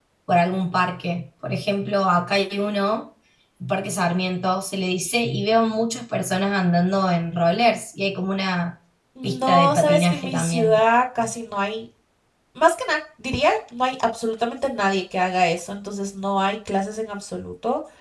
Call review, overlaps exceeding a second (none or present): present